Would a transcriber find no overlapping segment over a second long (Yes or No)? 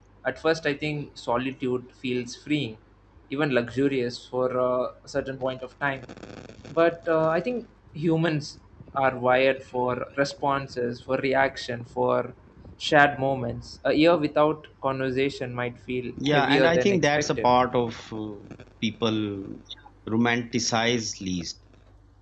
No